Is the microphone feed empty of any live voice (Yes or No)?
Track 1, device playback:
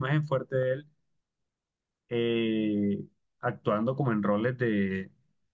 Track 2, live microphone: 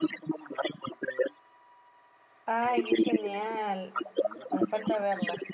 No